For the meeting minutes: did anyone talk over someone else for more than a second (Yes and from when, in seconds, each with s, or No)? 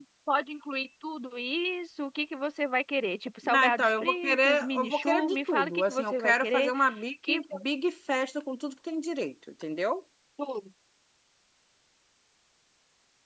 Yes, from 3.4 s